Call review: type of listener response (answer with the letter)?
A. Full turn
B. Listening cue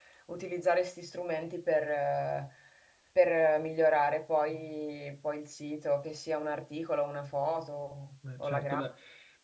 A